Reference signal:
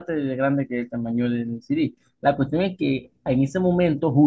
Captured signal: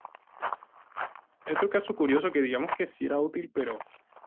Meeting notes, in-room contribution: present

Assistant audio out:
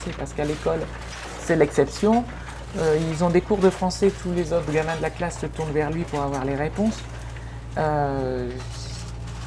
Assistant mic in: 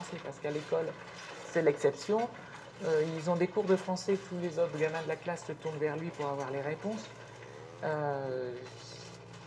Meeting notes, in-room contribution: none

